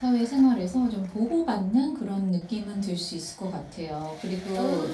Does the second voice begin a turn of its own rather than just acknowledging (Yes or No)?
No